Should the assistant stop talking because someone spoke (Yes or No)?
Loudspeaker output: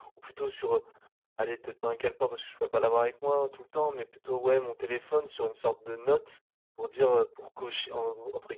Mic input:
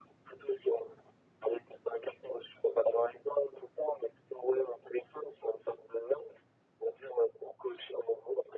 No